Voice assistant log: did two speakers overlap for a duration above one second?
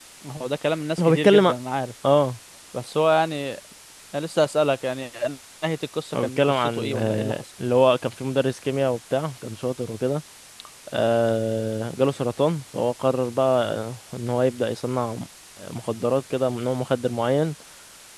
Yes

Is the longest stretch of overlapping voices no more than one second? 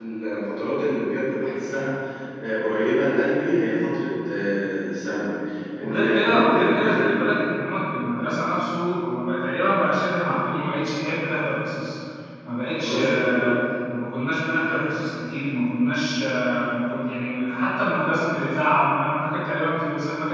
No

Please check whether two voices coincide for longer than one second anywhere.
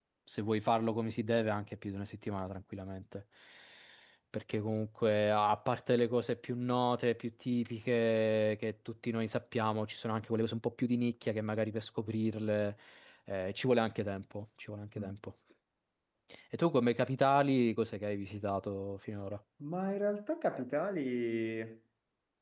No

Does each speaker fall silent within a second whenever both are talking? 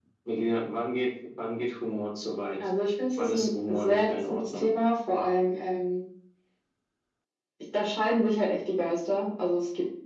No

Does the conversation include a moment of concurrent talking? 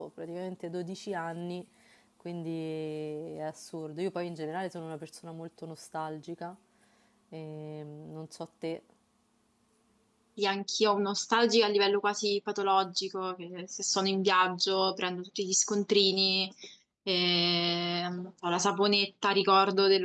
No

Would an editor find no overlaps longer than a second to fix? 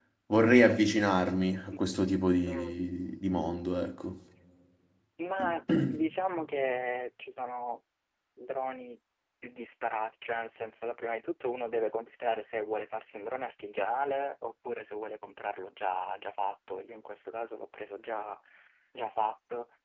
Yes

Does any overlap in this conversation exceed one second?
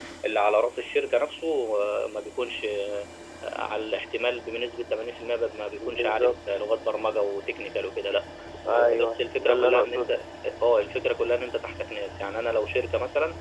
Yes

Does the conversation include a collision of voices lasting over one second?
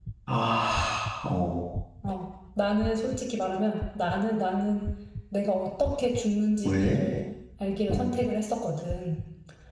No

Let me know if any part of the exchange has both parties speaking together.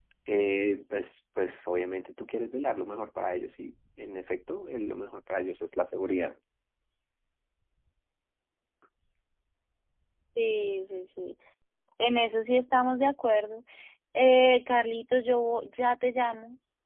No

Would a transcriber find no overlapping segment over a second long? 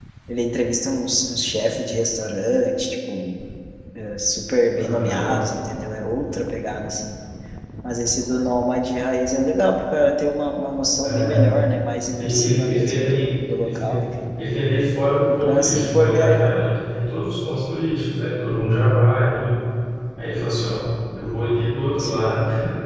No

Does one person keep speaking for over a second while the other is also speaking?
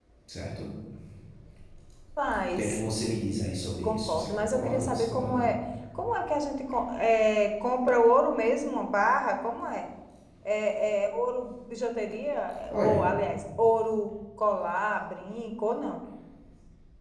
Yes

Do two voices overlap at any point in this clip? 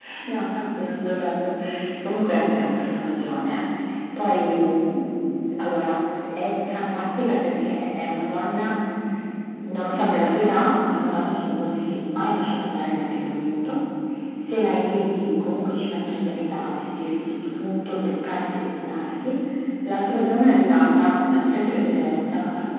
No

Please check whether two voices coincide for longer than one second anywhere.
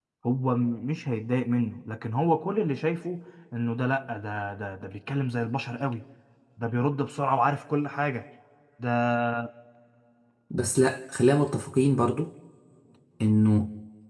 No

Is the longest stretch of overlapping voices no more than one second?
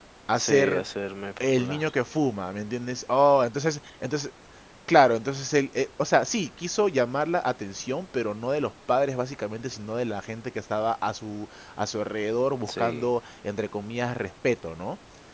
Yes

